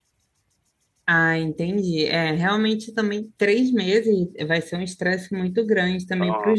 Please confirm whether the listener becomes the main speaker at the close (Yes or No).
No